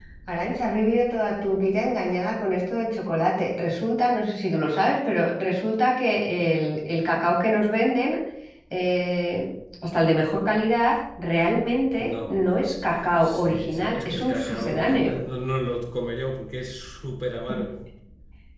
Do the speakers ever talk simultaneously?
Yes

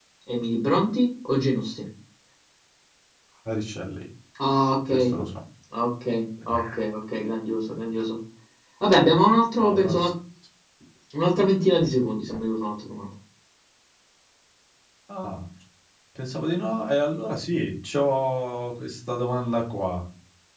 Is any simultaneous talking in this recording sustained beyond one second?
No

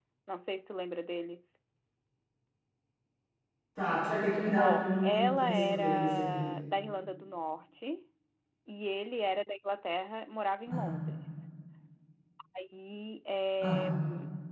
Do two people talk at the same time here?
Yes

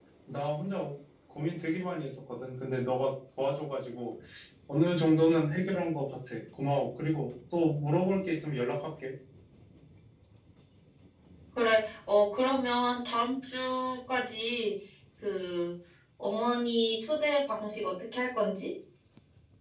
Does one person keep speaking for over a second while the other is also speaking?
No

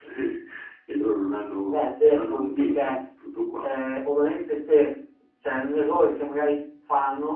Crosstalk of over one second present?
Yes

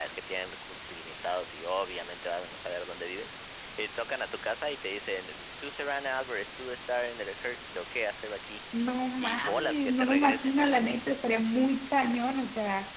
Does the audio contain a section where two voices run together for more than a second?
Yes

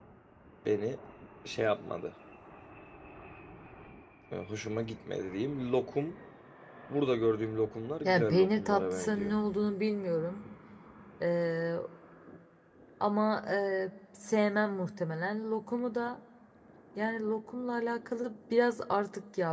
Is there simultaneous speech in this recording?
Yes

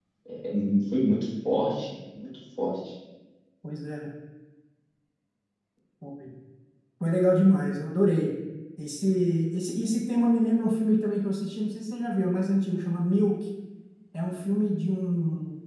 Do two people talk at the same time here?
No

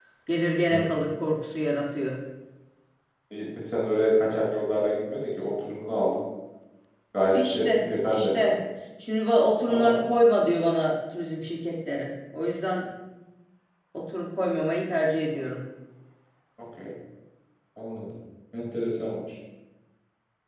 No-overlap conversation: No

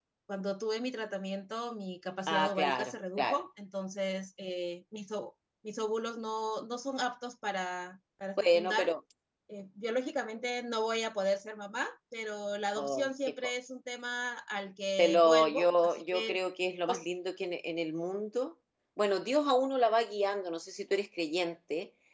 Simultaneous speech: Yes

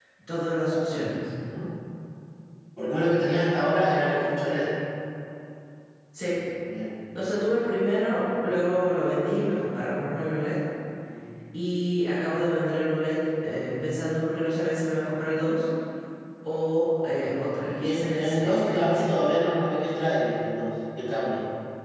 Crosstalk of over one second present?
Yes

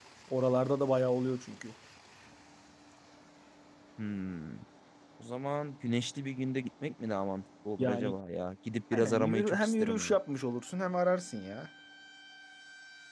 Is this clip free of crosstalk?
No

